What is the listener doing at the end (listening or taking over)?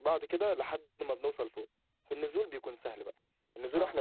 listening